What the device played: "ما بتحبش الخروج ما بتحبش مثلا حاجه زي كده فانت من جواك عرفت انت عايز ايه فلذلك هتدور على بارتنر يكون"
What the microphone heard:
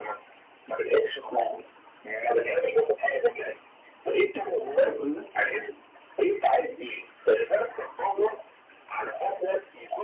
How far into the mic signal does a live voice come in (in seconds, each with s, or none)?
4.6 s